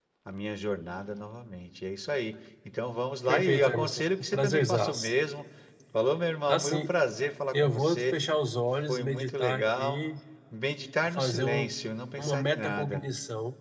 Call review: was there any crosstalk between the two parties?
Yes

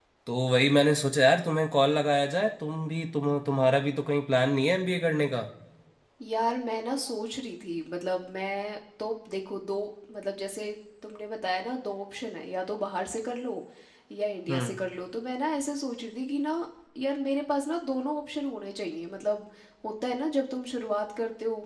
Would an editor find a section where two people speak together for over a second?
No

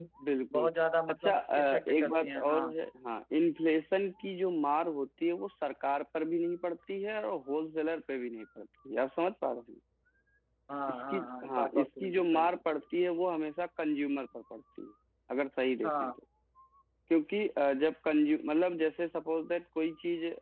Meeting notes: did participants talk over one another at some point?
Yes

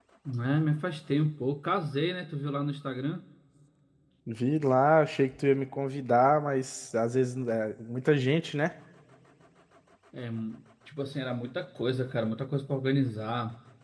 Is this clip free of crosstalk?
Yes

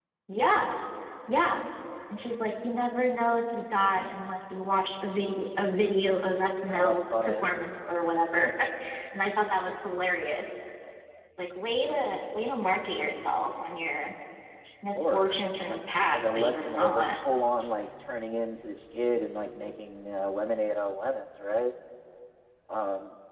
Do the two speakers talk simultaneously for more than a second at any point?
Yes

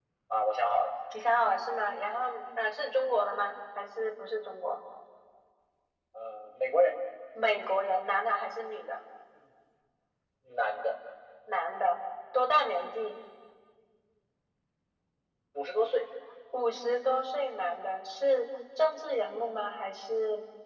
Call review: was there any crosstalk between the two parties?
No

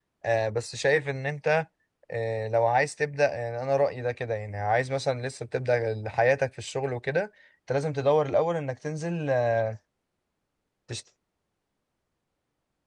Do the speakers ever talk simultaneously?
No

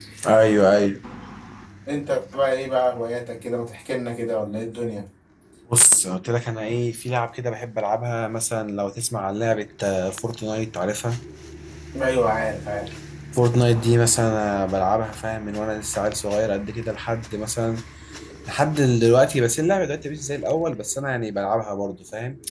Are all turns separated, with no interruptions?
Yes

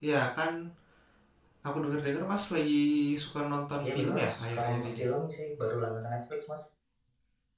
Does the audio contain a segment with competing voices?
Yes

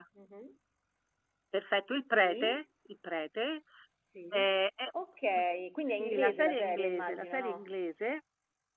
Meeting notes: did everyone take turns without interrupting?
No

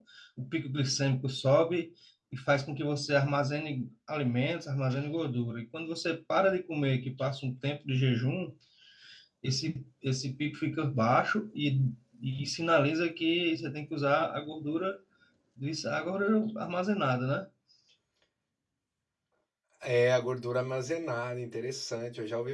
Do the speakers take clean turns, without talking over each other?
Yes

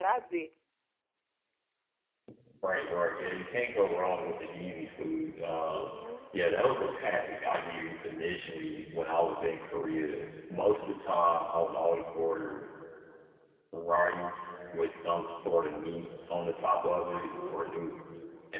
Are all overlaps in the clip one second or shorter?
Yes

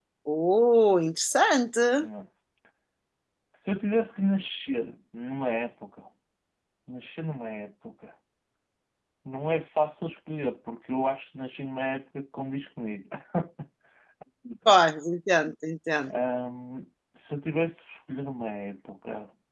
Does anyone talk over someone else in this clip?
No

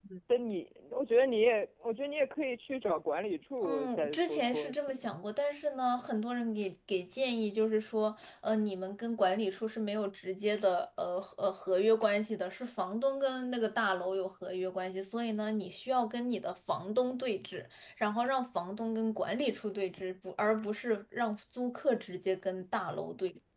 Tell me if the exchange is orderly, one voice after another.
No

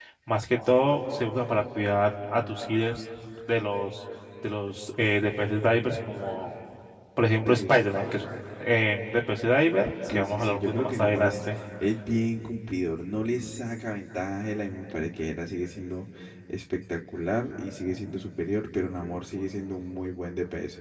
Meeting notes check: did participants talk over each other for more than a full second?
Yes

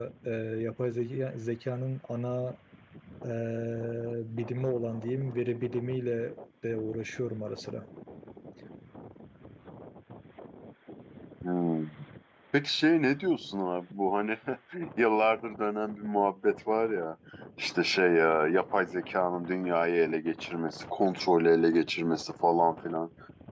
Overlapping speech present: No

